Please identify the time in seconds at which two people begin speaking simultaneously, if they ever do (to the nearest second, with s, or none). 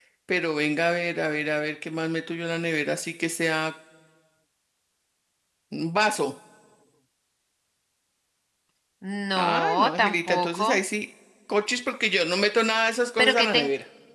9 s